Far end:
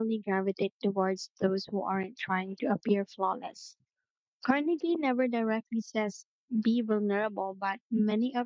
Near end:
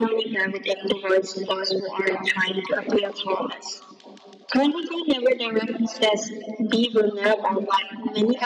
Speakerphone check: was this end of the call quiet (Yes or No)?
Yes